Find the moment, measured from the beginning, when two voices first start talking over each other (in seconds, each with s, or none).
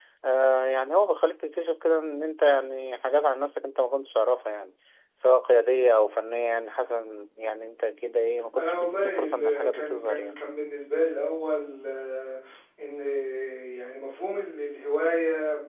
8.6 s